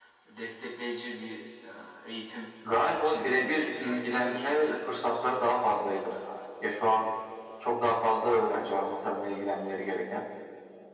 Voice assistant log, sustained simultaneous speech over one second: present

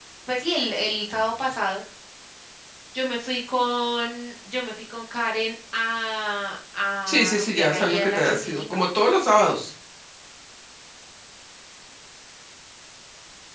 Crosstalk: present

